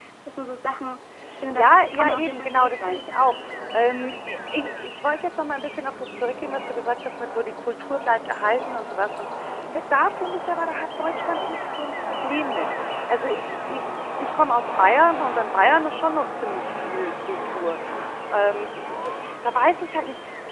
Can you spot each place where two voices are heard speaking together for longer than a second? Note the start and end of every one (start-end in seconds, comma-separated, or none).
1.6-3.0